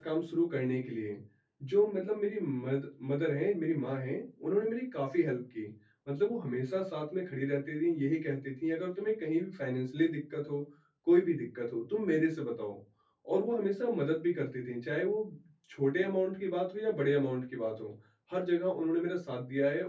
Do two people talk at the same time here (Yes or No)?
No